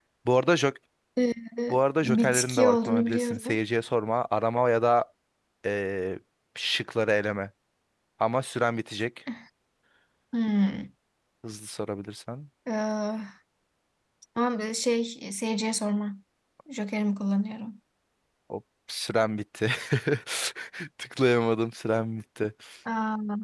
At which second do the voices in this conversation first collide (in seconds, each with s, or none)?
2.0 s